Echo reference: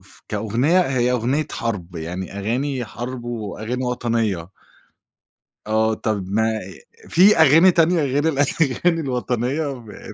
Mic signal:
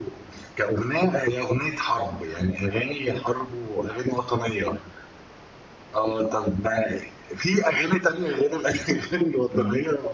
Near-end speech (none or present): present